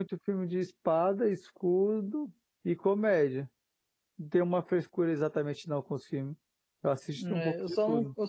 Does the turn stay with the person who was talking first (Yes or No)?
No